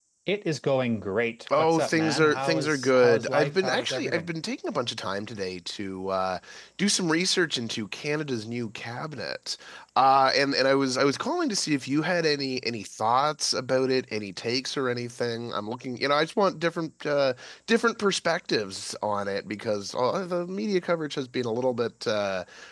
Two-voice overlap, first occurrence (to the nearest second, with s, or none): 1 s